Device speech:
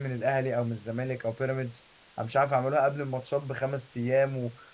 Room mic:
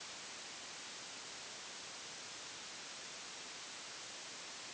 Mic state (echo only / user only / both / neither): neither